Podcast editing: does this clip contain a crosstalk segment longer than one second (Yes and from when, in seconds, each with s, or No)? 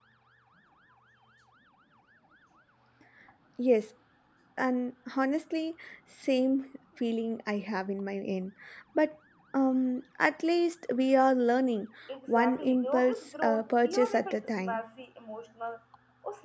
Yes, from 12.3 s